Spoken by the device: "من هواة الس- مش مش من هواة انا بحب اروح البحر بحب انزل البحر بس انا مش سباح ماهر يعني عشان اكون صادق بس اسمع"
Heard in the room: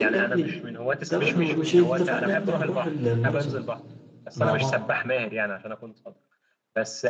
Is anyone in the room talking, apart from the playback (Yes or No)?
Yes